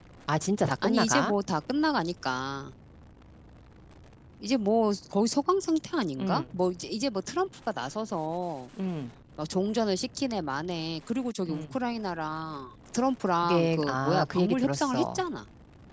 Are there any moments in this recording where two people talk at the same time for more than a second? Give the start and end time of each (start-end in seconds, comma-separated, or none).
13.4-15.2